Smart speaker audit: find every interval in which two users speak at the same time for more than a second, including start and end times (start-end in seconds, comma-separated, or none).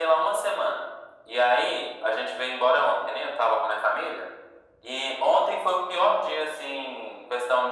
none